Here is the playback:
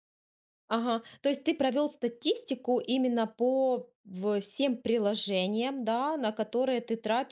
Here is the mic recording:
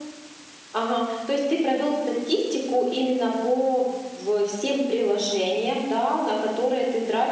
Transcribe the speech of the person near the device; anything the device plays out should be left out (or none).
none